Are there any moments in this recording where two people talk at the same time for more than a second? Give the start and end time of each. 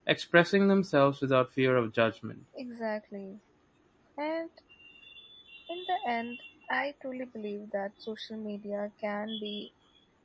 none

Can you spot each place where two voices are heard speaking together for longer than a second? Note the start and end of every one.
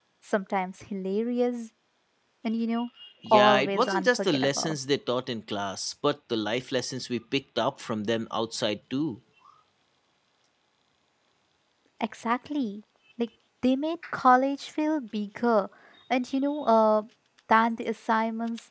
3.3-4.8

